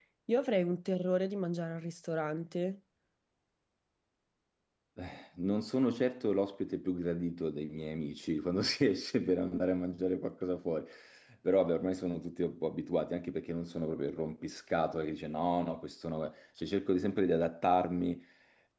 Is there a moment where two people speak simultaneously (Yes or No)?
No